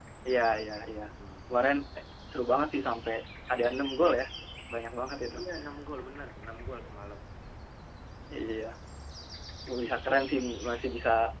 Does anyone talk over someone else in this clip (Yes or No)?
No